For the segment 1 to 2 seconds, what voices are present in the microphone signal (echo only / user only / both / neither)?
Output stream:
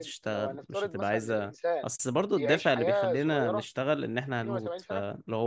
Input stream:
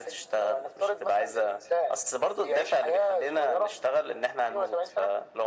echo only